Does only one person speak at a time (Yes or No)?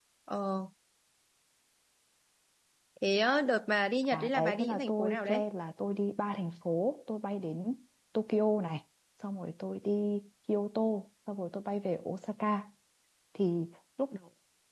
No